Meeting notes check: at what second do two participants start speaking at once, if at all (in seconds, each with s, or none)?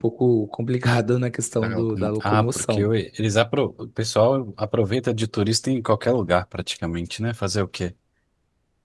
1.6 s